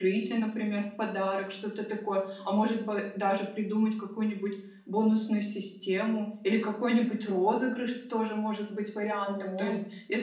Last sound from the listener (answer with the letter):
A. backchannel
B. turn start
A